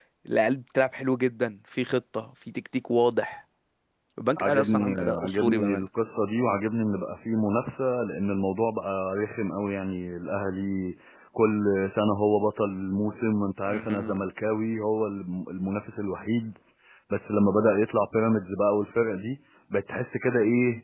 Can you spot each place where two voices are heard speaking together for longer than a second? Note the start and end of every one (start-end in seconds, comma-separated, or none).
4.4-5.9